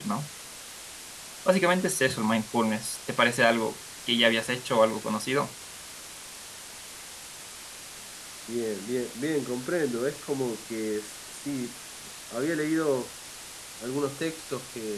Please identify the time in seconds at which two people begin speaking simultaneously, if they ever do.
none

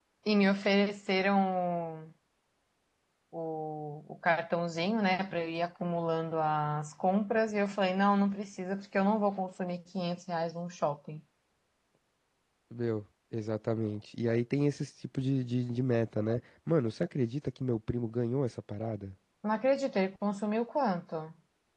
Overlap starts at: none

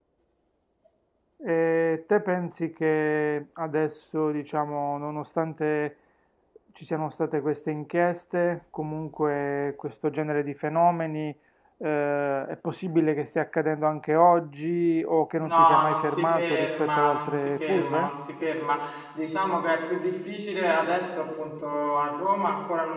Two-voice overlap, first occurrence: 15.4 s

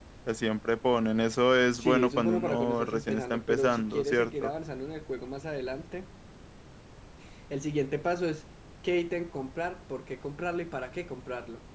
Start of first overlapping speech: 1.8 s

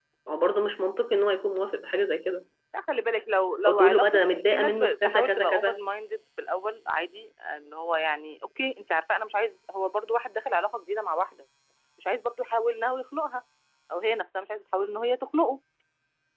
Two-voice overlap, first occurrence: 3.6 s

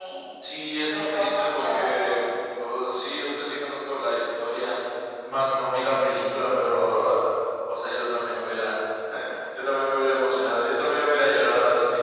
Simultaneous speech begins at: 0.8 s

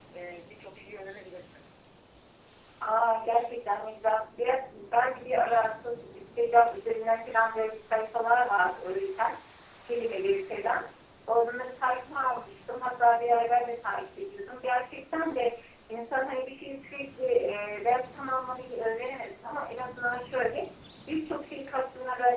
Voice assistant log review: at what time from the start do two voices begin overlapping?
none

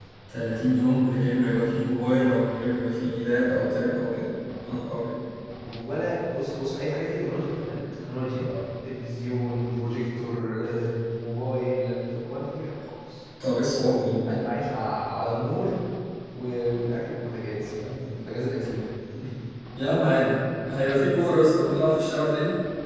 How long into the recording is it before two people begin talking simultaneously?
none

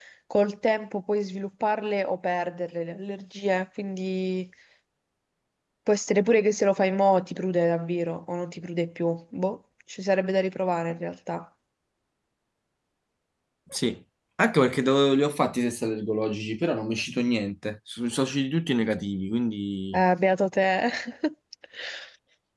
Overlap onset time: none

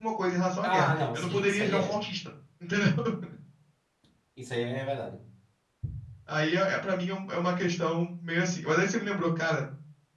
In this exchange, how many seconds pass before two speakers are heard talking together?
0.6 s

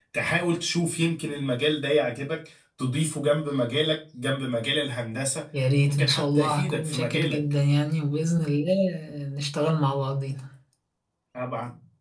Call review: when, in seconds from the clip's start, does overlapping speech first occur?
5.9 s

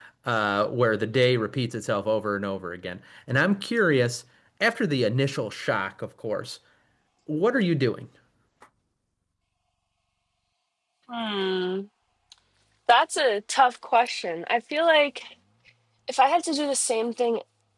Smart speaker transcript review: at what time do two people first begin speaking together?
none

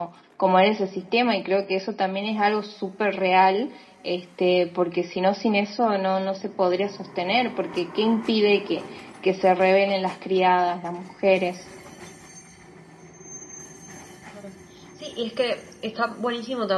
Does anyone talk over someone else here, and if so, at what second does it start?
none

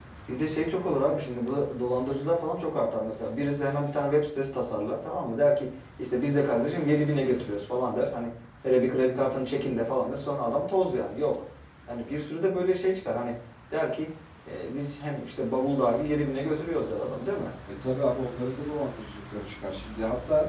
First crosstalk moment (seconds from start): none

